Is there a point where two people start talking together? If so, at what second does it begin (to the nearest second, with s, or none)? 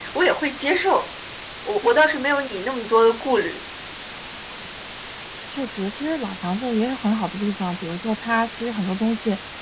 none